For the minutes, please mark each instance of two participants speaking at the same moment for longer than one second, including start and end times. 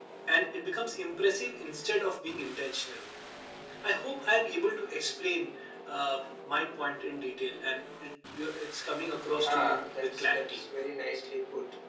9.3-10.6

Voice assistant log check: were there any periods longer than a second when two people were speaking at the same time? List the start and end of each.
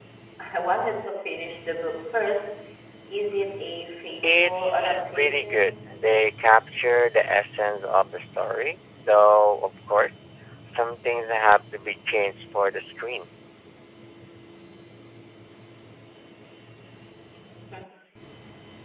4.4-5.7

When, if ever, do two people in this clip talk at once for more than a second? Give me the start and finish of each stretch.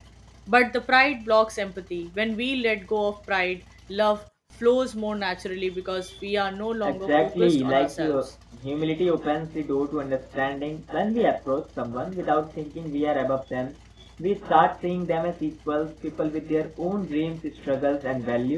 6.8-8.2

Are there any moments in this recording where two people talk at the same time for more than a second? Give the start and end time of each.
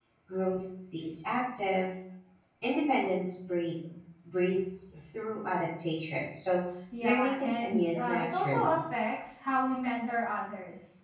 7.0-8.8

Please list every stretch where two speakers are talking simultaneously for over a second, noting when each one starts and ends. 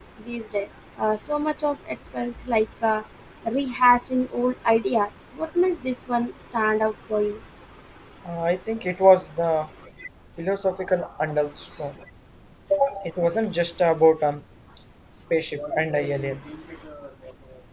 none

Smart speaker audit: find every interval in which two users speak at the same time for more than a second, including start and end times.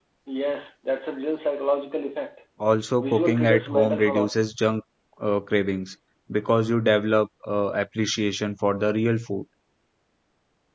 3.0-4.3

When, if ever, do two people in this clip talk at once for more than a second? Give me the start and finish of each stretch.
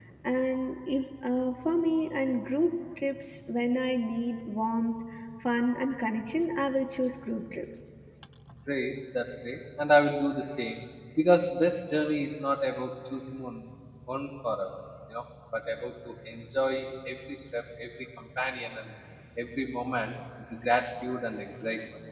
none

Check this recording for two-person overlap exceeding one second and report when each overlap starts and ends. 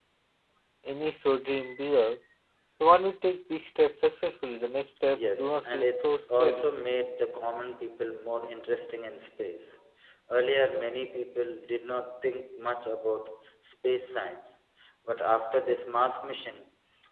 5.1-6.7

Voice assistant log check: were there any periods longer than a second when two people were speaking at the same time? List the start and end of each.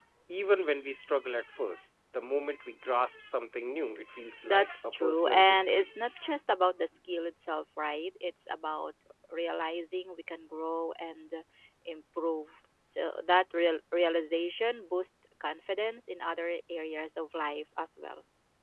4.4-5.9

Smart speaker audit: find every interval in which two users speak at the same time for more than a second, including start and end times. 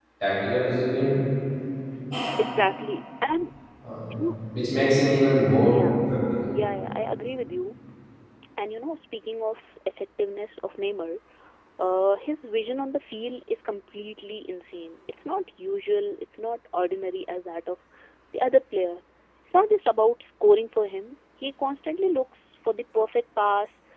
none

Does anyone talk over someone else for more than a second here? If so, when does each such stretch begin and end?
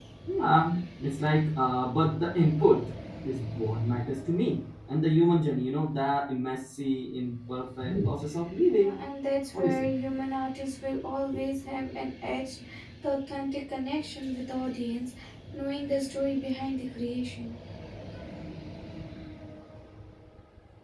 none

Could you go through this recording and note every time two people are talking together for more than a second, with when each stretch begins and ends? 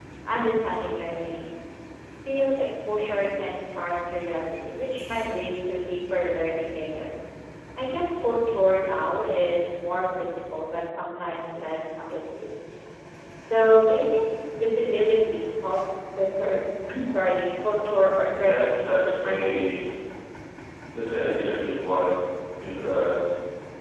18.4-19.7

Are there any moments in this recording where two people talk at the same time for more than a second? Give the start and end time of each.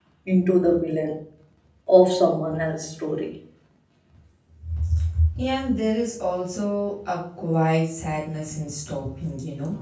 none

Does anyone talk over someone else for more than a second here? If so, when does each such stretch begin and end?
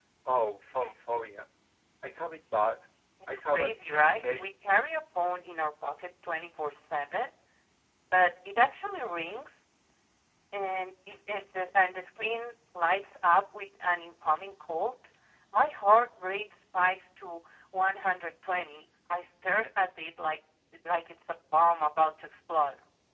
3.3-4.6

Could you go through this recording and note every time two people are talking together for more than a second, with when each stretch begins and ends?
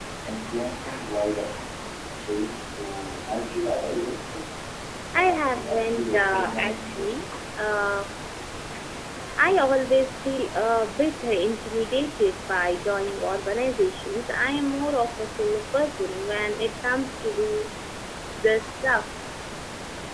5.2-7.2

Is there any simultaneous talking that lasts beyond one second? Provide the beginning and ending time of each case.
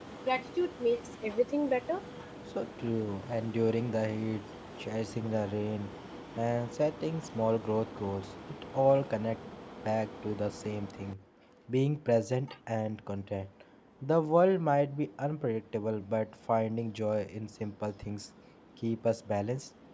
none

